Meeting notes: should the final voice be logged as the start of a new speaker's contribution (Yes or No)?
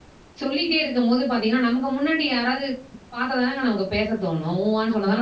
Yes